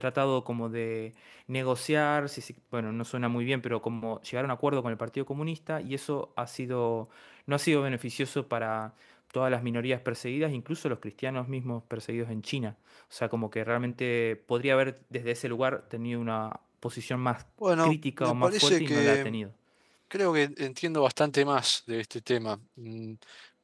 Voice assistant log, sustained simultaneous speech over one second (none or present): present